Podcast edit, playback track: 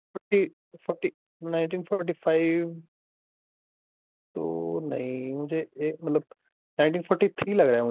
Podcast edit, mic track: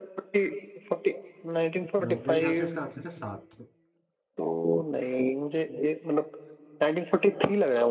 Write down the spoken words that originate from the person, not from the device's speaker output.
अ, मेरे ख्याल से इसका आंसर है सात

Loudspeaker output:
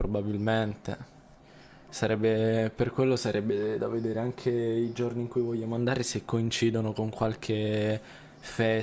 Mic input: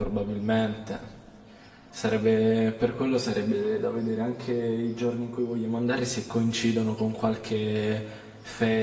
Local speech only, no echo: none

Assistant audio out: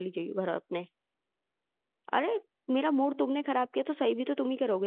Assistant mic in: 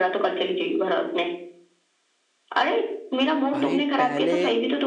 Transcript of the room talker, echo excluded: भाई पहले

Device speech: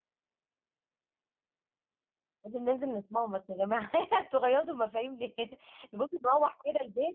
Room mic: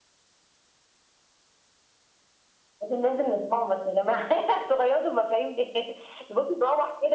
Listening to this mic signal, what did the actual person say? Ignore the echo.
none

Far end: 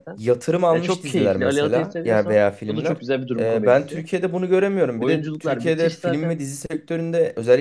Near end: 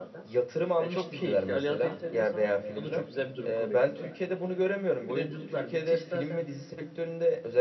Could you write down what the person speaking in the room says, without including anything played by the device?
none

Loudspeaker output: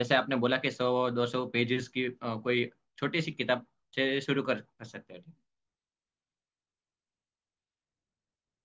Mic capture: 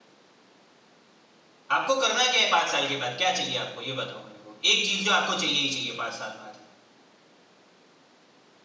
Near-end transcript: आपको करना क्या है पाँच साल के बाद क्या चाहिए आपको ये बताओ मेरे को एक चीज जो आपको चाहिए ही चाहिए पाँच साल बाद

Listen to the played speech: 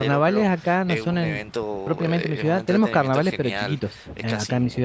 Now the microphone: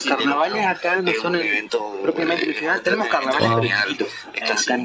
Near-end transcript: Wow.

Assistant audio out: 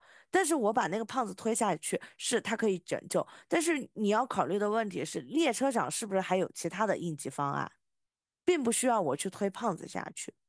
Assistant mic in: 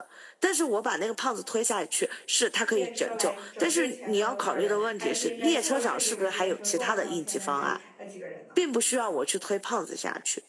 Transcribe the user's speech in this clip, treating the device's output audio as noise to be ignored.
电车来拯救前面的五个人，还是应该坐视这个电车撞上前面这呃几个人呢？

